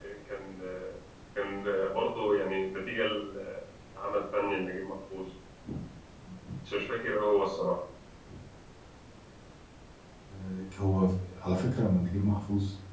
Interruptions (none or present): none